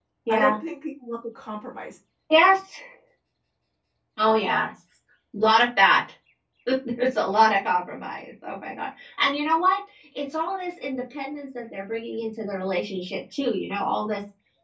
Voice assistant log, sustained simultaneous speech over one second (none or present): none